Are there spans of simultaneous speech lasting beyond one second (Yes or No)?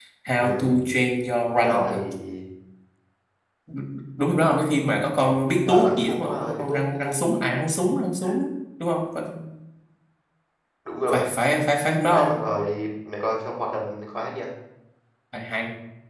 Yes